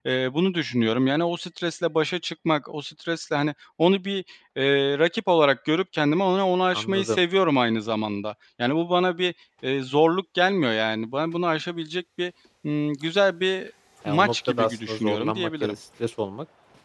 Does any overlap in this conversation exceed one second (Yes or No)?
Yes